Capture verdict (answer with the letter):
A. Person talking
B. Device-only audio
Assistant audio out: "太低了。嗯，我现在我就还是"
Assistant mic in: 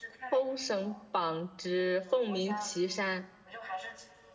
A